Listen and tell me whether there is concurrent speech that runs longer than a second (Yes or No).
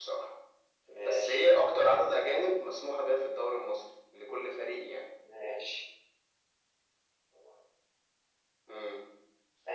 No